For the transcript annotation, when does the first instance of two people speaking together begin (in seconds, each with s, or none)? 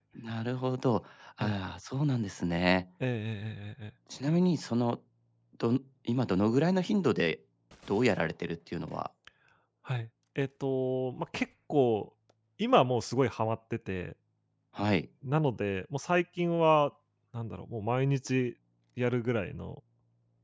none